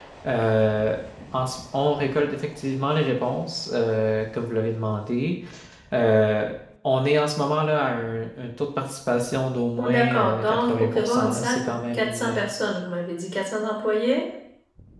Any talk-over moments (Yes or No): Yes